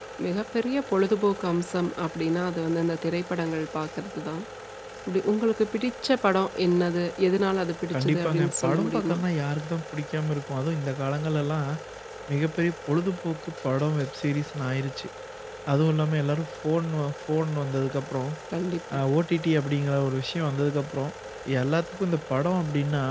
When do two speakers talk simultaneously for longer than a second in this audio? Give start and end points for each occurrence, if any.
7.9-9.2

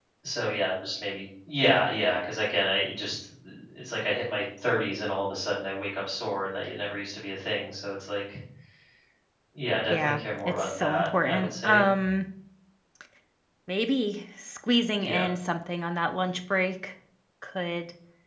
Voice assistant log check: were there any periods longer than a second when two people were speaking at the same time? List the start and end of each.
9.9-11.8

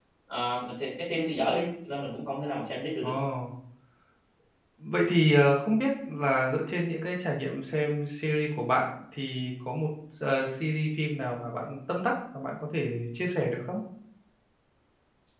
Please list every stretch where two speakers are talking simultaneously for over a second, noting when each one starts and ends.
none

